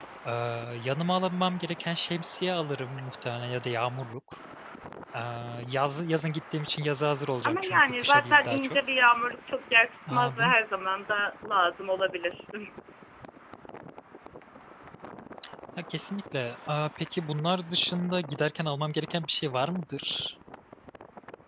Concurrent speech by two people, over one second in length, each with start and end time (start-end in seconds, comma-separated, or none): 7.4-8.8